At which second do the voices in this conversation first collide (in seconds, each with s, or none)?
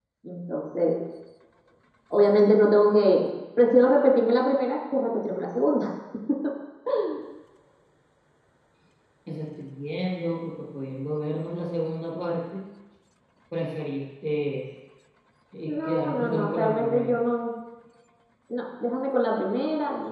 15.7 s